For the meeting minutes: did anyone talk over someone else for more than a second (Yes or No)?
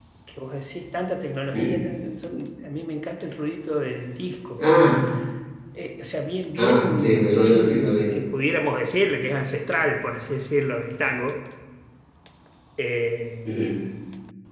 Yes